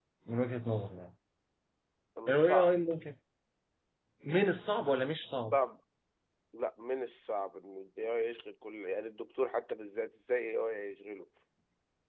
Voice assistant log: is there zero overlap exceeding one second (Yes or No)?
Yes